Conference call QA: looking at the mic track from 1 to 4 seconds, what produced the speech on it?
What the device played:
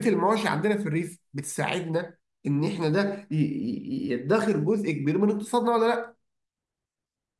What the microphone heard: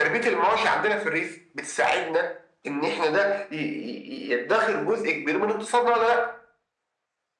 echo only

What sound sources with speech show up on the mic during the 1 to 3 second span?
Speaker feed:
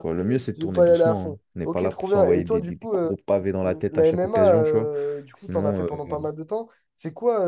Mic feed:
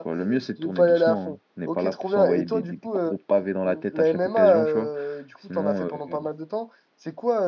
echo only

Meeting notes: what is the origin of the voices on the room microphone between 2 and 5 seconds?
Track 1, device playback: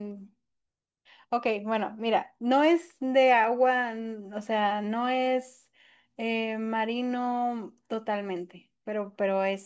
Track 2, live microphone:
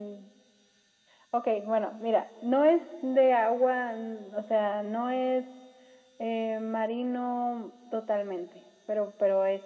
echo only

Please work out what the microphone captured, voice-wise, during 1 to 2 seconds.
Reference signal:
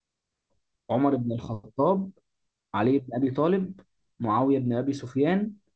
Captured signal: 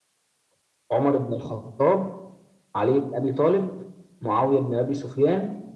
echo only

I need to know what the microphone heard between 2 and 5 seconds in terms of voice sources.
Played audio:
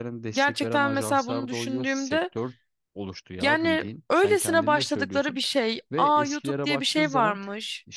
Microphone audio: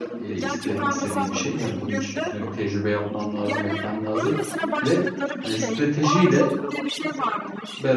both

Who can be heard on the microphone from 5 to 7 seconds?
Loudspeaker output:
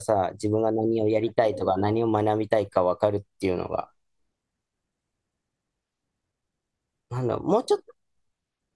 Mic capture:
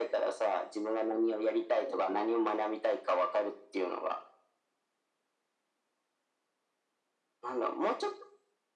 neither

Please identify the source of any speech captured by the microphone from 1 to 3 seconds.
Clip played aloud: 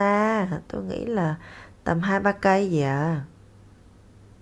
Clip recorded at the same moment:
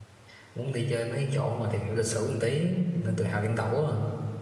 user only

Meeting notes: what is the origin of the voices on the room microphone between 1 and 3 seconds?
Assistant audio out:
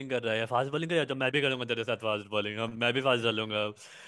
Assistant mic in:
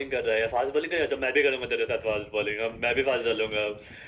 echo only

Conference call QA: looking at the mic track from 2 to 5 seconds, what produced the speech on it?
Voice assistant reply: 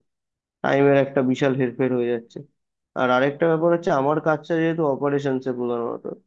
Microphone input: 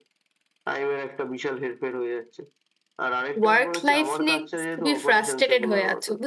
both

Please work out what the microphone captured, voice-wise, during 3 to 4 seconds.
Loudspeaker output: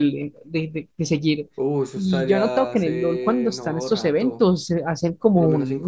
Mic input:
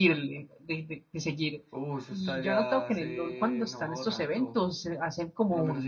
echo only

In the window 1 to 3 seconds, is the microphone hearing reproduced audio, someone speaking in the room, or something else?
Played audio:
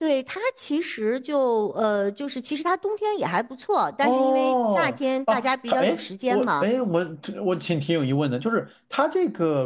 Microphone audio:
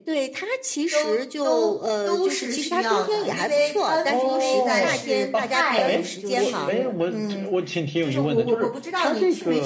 both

